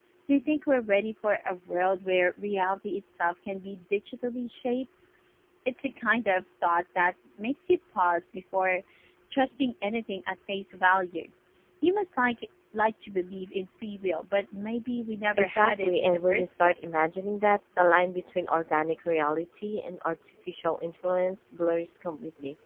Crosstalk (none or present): present